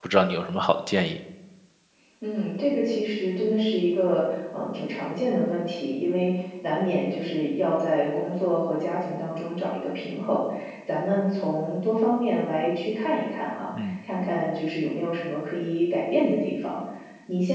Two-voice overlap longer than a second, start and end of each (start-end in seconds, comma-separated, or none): none